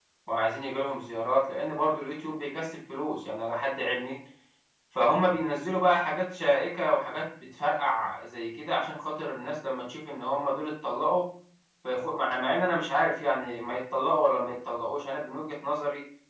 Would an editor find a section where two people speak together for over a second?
No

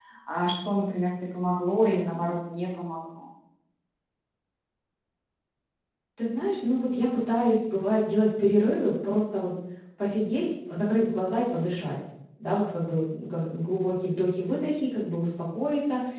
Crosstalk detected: No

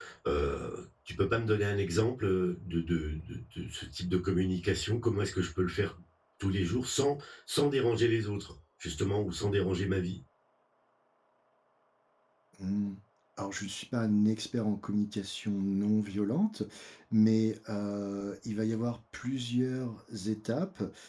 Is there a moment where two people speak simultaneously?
No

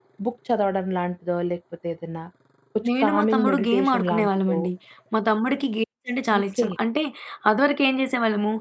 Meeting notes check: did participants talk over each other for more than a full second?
Yes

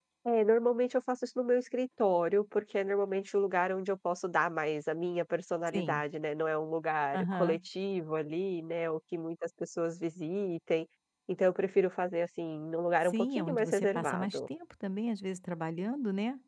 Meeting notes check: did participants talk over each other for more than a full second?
Yes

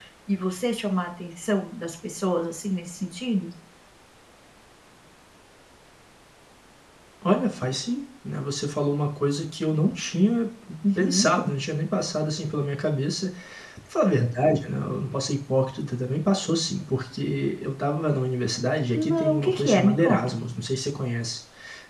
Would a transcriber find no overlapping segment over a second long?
No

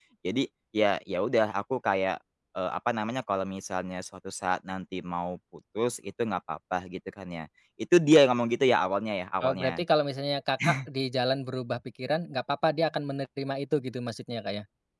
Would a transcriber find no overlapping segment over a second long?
Yes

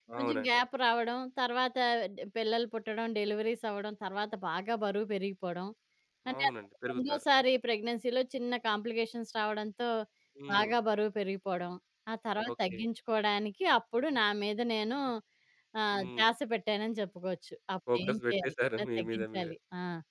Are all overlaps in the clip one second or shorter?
No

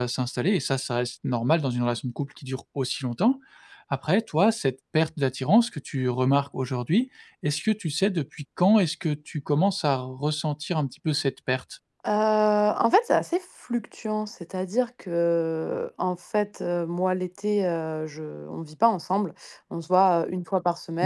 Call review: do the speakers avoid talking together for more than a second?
Yes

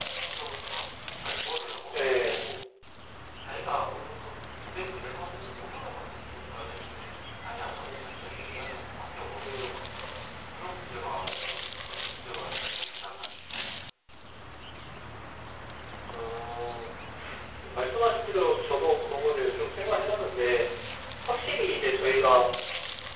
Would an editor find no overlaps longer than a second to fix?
Yes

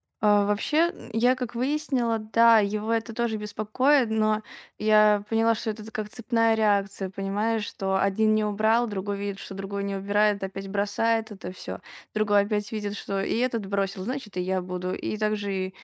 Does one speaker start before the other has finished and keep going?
No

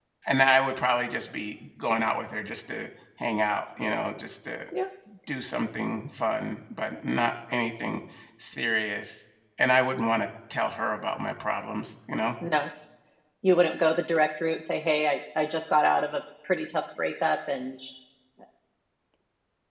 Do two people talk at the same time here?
No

